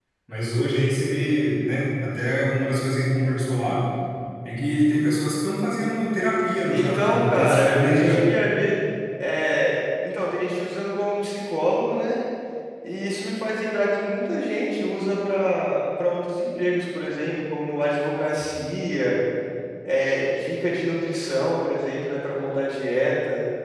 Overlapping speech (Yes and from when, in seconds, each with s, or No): Yes, from 6.7 s